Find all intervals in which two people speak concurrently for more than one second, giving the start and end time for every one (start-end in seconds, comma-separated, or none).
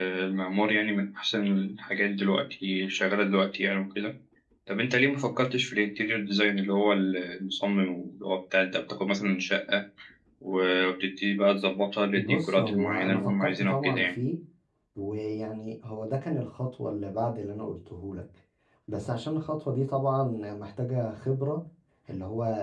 12.2-14.1